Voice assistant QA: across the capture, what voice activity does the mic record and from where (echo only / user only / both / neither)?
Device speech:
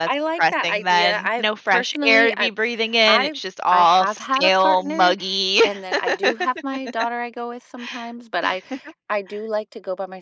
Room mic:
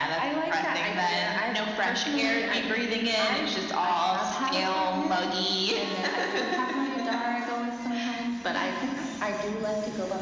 echo only